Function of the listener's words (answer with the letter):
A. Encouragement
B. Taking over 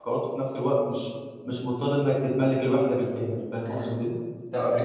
B